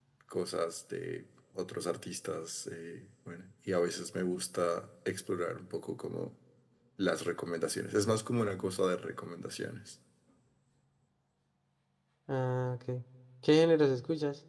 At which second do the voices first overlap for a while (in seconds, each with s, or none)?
none